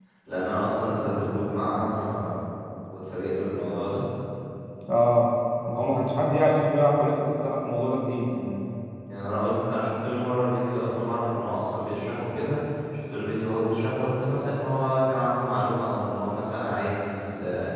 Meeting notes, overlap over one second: none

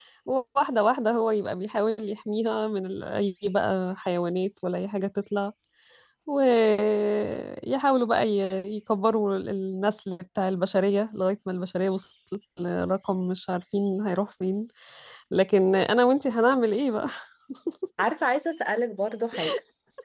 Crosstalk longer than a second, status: none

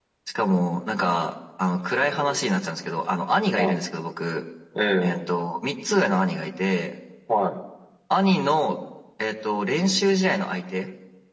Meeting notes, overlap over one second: none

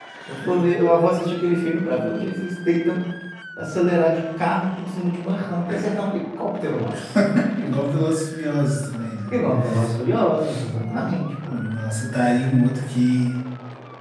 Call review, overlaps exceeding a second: none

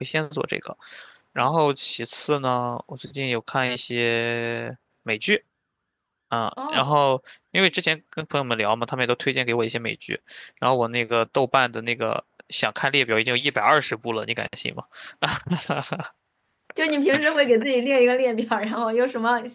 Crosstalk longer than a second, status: none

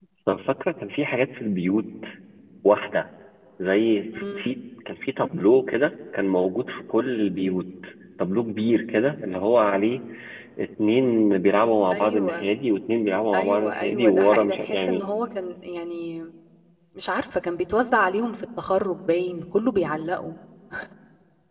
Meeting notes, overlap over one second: present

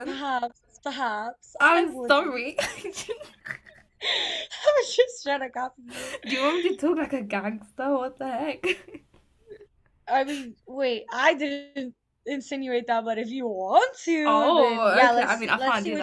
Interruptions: present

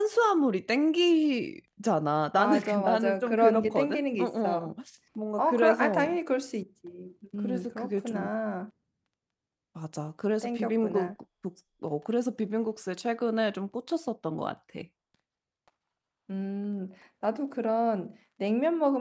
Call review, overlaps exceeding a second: present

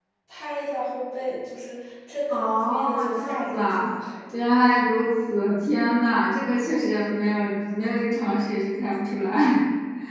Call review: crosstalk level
present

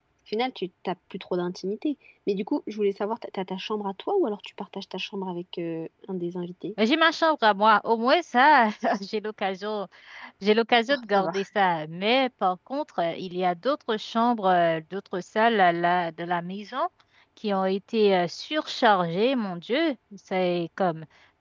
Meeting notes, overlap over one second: none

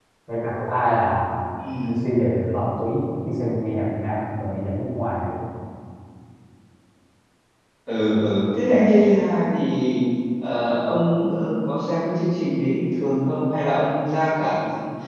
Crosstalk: none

